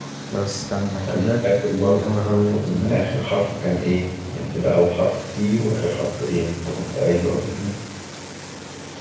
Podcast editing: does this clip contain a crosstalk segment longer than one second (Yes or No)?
Yes